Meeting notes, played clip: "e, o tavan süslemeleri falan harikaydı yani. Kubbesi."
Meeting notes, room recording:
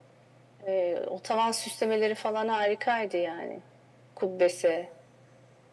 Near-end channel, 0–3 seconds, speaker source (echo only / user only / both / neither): echo only